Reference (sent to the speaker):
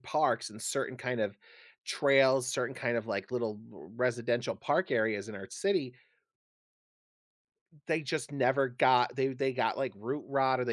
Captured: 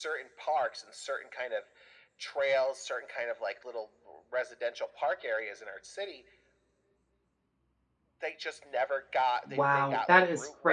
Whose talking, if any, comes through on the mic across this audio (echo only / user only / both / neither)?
both